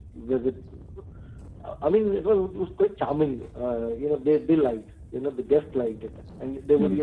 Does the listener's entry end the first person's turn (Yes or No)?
No